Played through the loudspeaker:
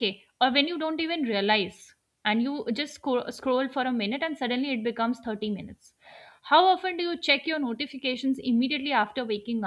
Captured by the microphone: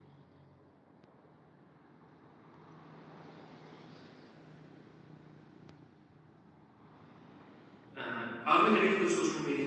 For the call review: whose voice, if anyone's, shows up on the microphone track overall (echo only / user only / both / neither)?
user only